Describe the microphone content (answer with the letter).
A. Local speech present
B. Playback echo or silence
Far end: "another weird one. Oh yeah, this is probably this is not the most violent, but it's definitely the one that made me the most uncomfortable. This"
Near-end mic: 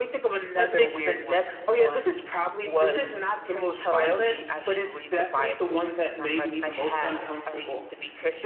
A